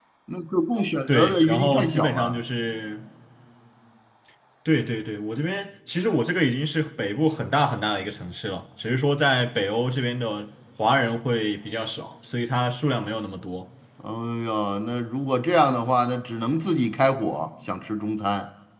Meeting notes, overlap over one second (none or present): present